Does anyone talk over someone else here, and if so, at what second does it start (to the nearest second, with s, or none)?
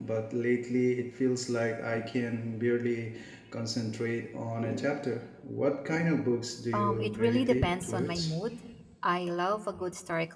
7 s